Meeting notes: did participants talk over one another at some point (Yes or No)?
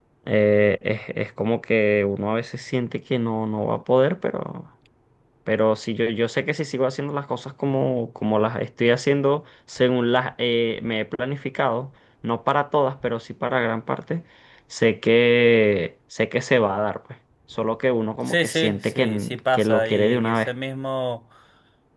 Yes